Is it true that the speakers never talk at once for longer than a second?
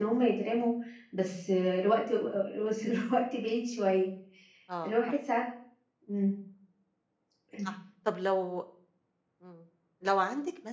Yes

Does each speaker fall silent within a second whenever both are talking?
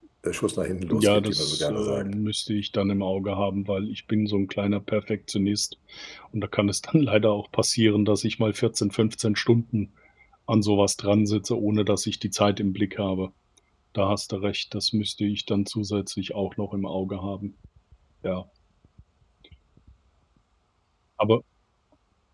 No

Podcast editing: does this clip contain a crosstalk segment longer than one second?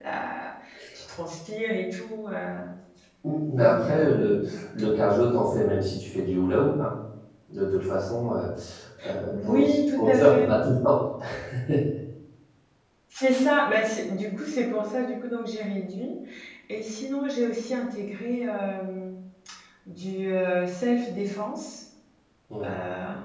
Yes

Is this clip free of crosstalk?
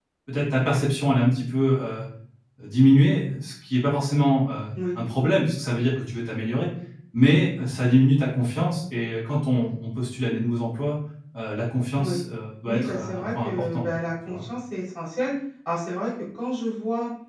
No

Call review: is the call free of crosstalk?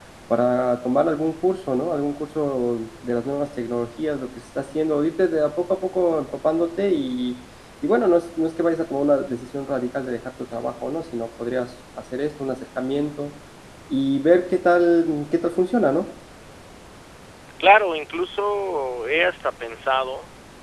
Yes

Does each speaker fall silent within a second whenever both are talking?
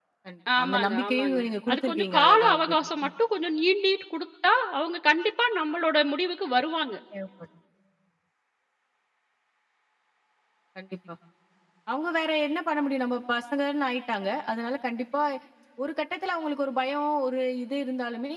No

